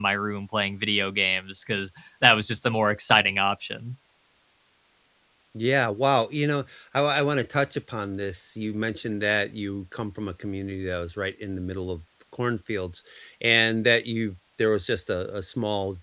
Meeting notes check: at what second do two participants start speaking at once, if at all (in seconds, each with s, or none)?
none